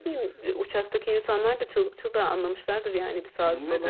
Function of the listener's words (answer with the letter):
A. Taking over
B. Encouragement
A